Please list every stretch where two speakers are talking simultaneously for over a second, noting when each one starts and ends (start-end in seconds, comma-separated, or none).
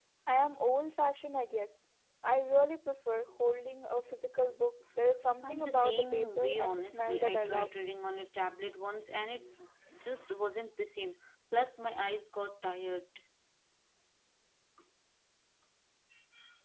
5.4-7.7